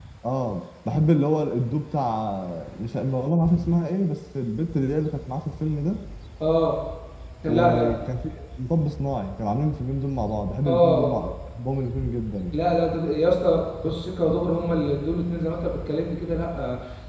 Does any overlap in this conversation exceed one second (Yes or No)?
No